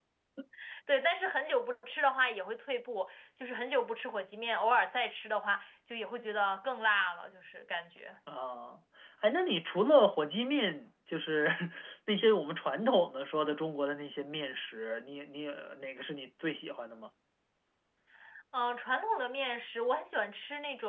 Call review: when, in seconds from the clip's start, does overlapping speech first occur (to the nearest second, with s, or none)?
none